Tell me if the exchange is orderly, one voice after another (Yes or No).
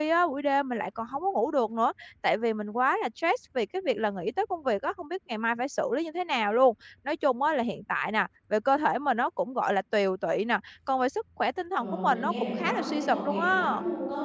No